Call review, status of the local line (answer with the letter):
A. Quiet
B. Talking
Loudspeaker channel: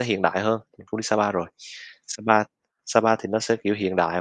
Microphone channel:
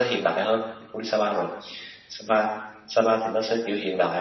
A